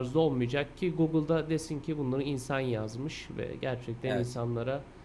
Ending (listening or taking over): listening